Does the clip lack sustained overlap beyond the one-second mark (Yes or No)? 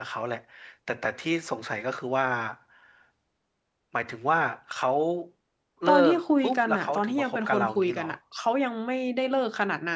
No